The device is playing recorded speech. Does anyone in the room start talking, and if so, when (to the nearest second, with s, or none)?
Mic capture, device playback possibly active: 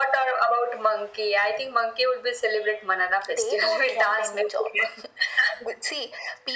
none